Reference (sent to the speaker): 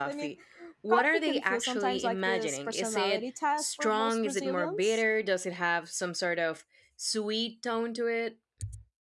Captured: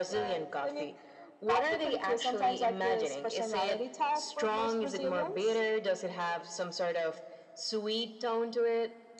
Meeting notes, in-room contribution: none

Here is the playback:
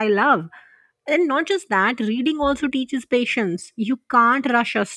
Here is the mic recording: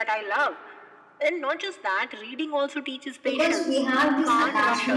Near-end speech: present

